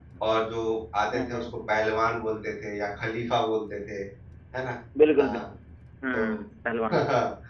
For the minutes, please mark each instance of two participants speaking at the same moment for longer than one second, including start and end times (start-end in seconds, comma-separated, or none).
none